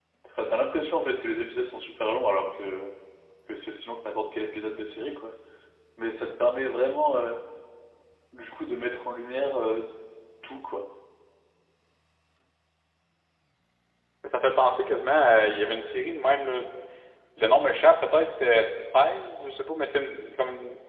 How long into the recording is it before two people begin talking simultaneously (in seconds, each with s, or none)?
none